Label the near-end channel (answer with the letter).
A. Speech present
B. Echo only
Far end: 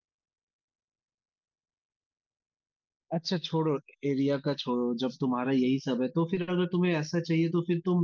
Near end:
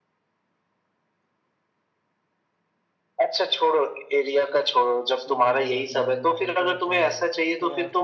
A